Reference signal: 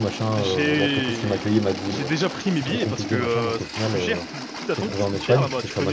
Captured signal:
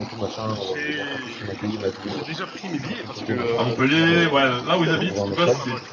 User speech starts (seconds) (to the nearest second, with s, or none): 4 s